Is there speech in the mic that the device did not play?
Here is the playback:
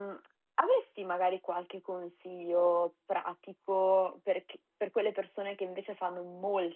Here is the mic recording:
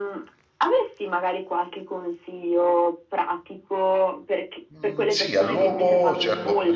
Yes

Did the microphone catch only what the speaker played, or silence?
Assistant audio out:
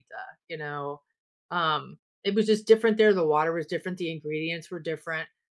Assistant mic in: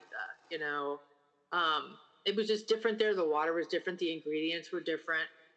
Yes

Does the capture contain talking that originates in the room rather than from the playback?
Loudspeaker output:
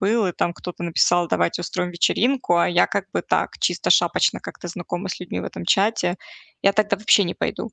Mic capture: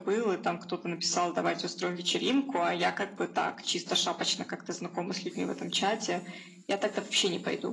No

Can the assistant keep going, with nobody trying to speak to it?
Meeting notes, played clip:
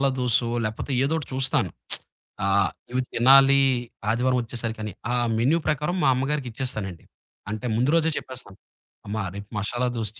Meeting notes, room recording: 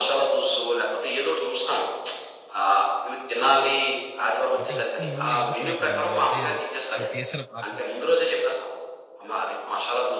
No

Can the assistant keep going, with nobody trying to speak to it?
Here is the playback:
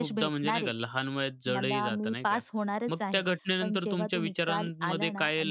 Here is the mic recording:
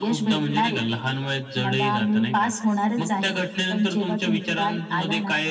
Yes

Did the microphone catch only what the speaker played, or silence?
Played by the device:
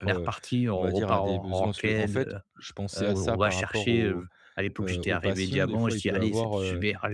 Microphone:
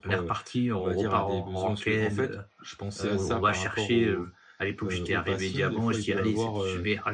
Yes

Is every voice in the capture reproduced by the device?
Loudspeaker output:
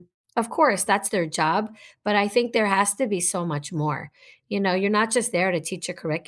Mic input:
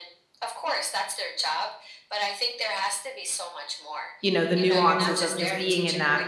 No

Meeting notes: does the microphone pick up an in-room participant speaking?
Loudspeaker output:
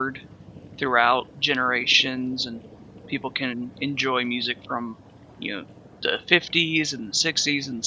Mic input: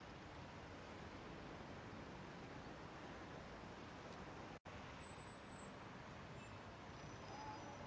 No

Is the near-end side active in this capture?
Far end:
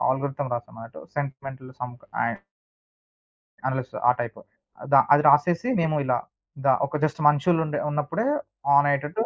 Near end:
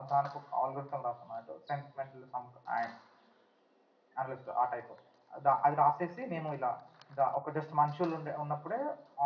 No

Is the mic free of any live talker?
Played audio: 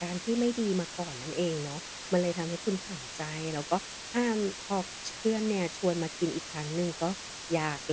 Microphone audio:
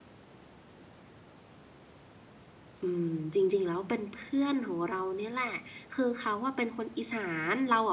No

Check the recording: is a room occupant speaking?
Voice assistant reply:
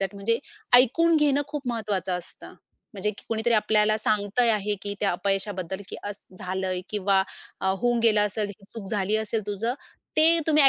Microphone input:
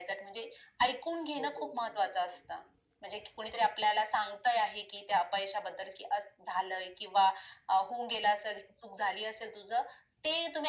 Yes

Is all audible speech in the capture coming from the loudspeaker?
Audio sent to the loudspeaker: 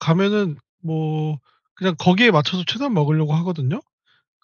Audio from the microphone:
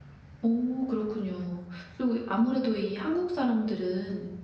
No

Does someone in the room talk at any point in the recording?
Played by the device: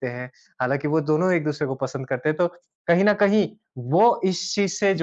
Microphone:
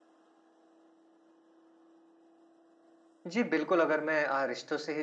Yes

